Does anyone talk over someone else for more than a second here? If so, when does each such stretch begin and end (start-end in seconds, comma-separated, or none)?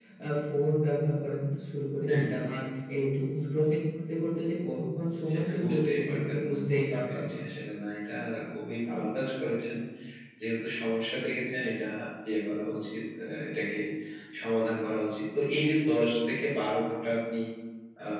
5.3-7.4